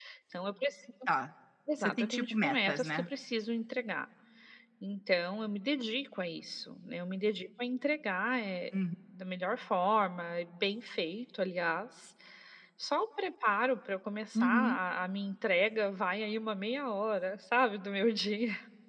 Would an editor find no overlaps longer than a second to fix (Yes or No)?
No